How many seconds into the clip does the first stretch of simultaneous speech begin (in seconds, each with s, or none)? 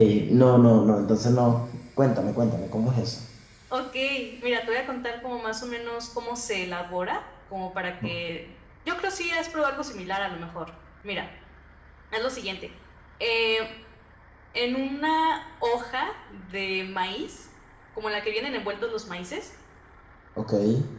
none